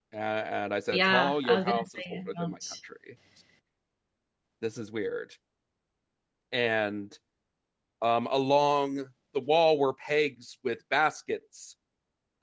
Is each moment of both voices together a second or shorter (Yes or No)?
No